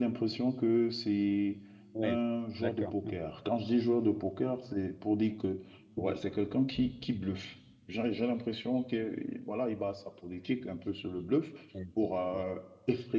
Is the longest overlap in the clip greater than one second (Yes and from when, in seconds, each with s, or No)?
No